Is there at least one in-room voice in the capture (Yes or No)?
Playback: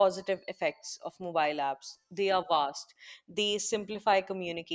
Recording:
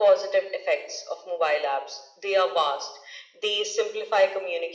No